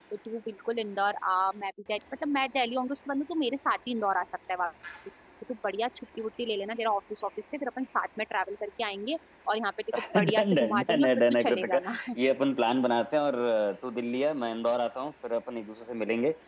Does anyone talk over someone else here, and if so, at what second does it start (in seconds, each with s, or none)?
9.9 s